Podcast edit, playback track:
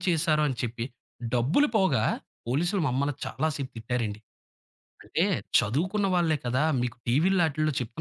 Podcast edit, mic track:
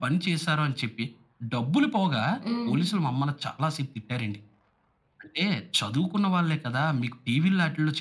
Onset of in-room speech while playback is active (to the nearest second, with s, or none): 2 s